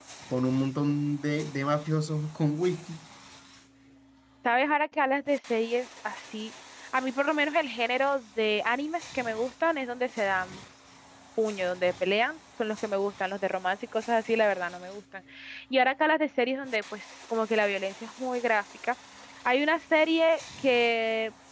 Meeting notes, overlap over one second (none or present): none